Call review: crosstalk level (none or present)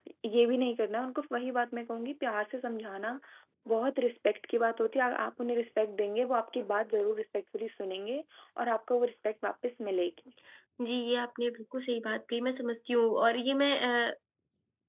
none